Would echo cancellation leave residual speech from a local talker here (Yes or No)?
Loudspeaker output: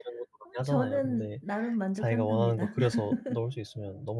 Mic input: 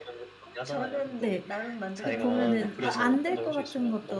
Yes